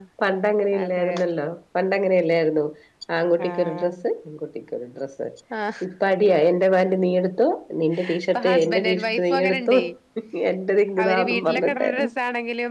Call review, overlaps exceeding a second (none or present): present